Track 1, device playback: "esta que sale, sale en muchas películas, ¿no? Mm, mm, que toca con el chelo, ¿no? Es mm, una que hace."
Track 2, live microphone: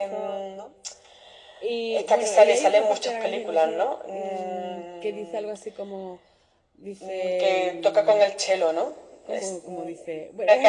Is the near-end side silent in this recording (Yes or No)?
No